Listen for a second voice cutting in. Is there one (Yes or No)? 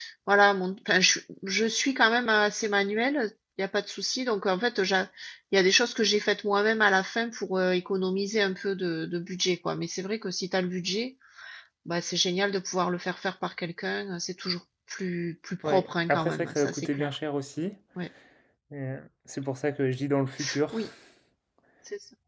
Yes